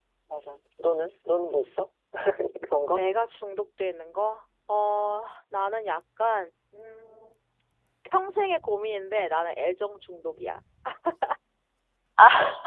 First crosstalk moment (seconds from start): none

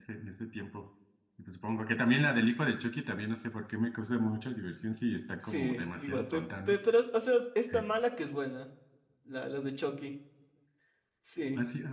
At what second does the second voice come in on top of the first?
5.4 s

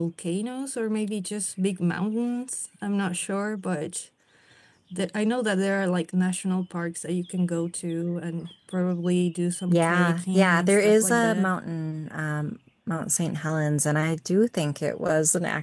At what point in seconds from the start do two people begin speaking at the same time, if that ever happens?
9.7 s

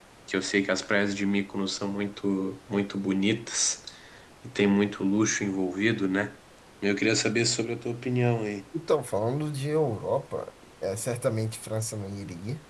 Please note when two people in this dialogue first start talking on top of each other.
none

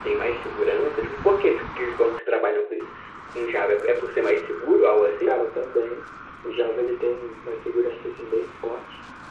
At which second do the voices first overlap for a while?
none

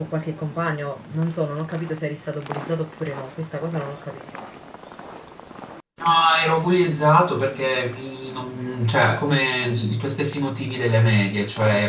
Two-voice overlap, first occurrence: none

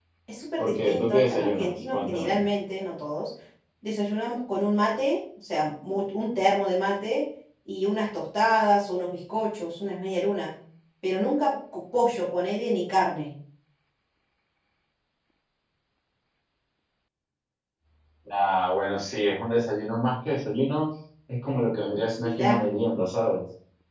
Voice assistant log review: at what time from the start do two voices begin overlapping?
0.6 s

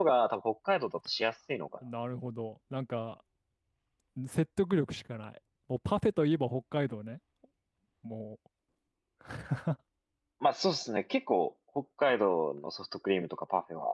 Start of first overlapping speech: none

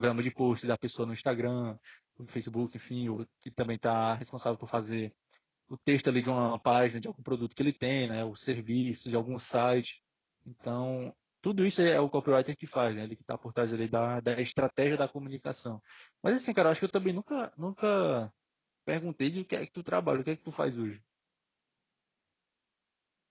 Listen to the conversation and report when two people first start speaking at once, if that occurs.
none

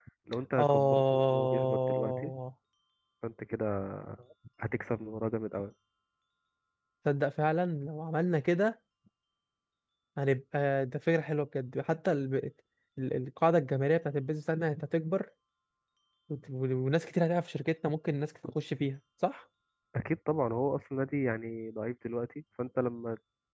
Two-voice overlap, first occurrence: 0.6 s

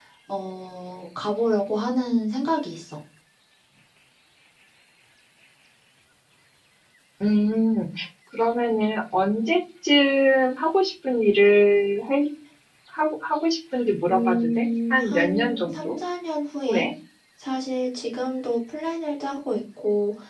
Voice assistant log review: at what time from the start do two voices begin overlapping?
14.1 s

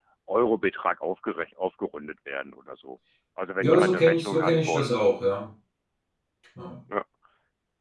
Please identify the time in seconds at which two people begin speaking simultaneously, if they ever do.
3.6 s

